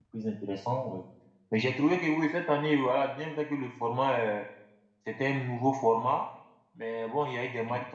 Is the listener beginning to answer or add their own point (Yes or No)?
No